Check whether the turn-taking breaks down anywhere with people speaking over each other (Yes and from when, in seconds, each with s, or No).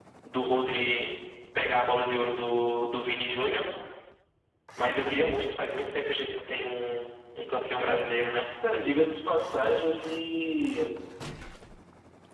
No